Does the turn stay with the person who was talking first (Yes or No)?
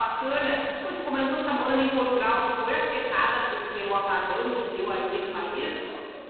No